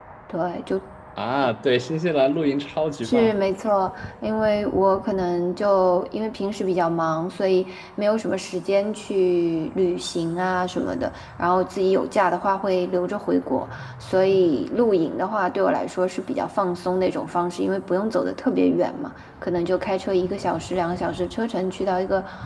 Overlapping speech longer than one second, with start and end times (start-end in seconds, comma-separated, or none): none